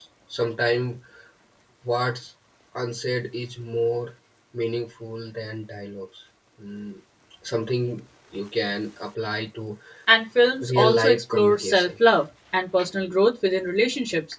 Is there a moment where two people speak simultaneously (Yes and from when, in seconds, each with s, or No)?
Yes, from 10.6 s